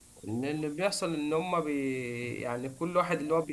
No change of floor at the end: Yes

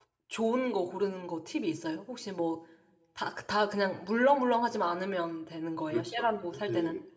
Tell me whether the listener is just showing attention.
No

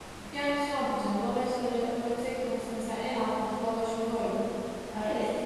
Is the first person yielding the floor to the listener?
No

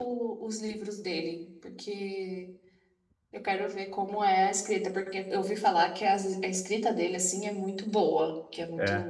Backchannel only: Yes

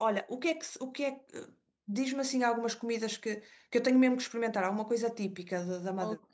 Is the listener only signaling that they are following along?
No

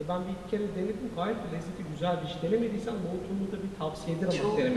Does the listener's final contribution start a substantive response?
Yes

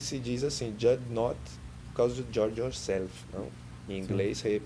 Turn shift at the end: No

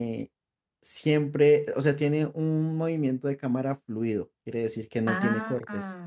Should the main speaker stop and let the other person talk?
Yes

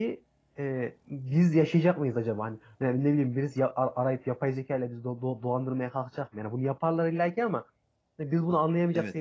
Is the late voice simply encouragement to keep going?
No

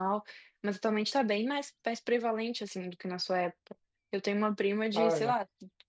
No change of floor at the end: Yes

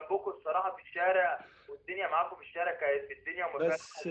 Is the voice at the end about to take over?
No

